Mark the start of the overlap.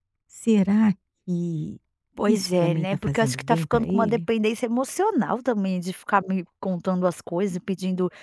2.3 s

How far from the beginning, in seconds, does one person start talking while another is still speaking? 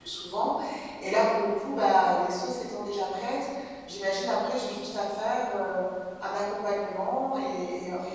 none

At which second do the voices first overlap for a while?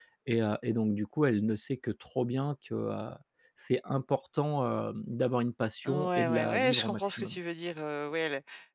5.8 s

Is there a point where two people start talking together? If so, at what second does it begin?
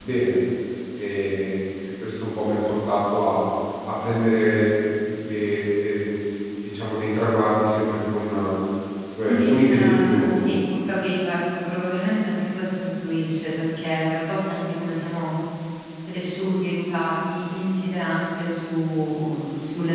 9.3 s

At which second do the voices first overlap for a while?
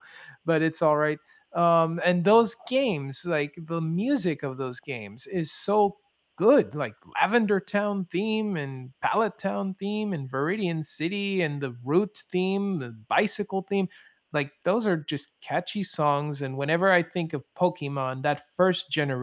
none

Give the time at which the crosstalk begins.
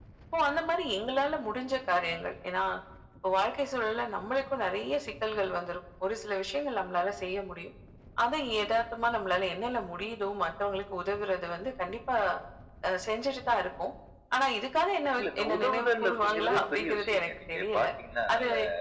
15.2 s

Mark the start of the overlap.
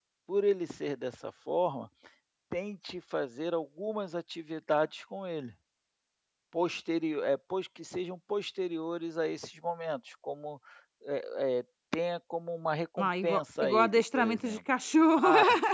13.0 s

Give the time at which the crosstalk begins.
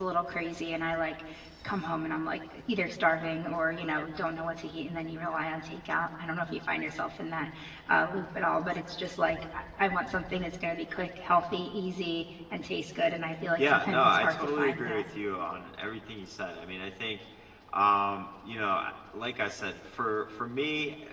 13.6 s

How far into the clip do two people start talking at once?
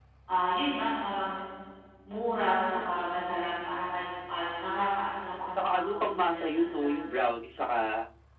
5.4 s

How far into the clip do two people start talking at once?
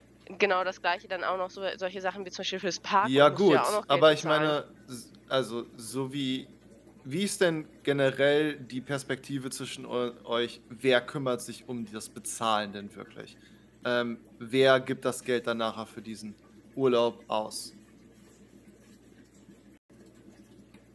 3.0 s

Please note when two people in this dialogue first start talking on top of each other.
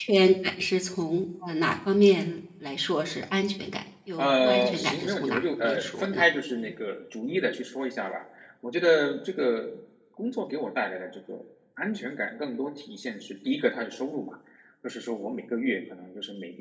4.2 s

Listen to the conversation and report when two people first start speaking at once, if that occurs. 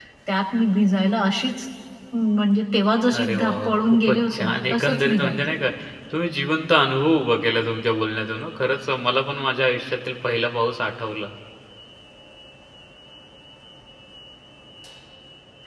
3.1 s

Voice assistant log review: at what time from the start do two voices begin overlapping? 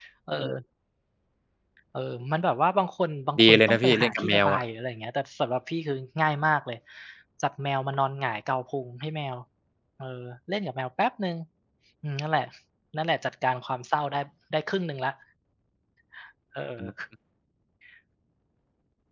3.4 s

